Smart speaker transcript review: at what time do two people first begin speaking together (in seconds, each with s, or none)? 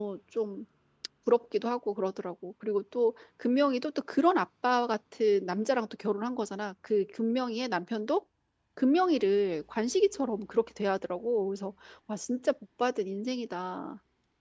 none